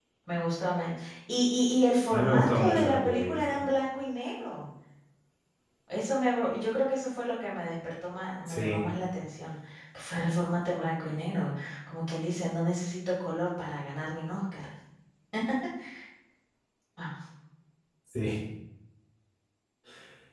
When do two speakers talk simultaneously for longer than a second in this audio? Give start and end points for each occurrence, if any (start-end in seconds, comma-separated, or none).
2.1-3.6